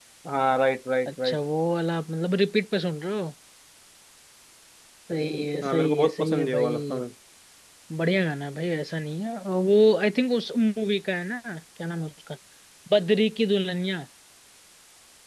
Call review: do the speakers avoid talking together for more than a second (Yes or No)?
No